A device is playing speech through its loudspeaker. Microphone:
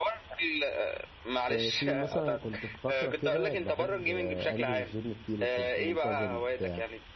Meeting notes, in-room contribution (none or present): present